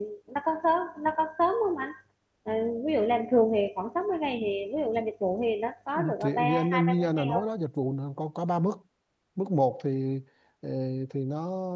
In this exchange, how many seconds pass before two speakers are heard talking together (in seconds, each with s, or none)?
6.0 s